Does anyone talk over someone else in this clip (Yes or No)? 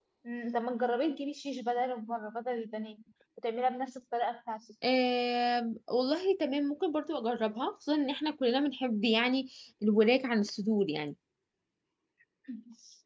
No